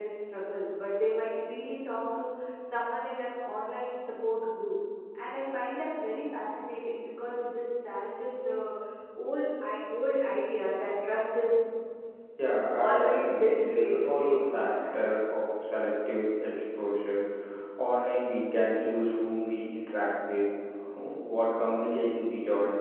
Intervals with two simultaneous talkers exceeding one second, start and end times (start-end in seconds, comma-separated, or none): 12.8-15.1